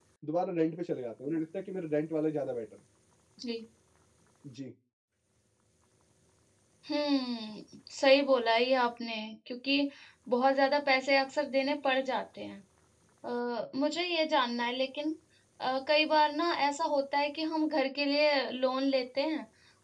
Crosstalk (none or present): none